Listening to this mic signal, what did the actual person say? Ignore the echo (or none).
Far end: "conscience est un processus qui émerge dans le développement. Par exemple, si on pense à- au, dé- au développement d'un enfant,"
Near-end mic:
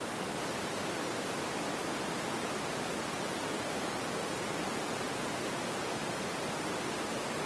none